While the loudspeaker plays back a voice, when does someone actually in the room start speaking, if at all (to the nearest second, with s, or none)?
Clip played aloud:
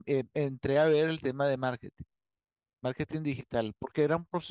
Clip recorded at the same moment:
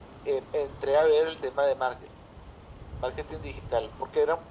none